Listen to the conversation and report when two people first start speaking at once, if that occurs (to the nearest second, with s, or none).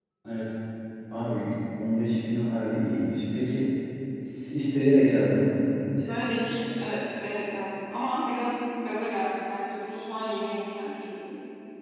none